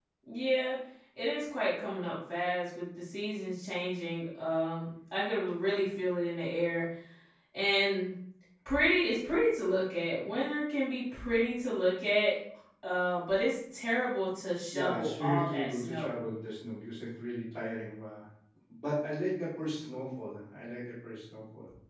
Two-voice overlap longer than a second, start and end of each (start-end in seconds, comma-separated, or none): 14.7-16.2